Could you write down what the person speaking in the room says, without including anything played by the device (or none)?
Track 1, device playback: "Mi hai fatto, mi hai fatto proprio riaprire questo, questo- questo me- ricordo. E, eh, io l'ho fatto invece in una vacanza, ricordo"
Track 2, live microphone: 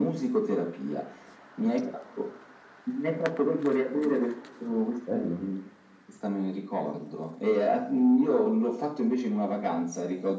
Bello,